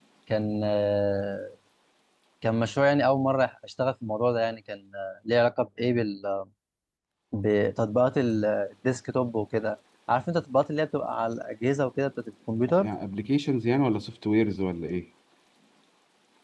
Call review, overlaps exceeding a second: none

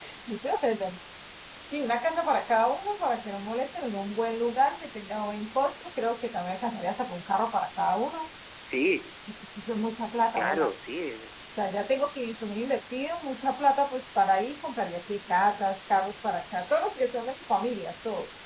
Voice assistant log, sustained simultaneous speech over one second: none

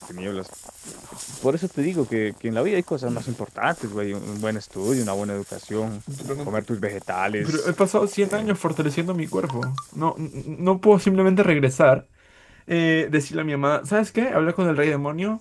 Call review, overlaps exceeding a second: none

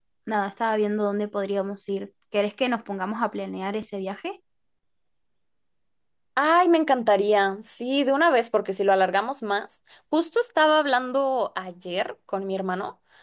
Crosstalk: none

